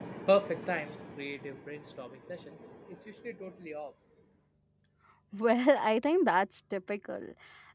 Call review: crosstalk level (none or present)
none